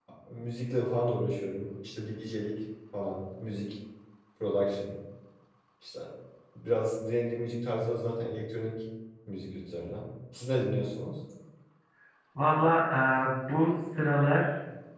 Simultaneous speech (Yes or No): No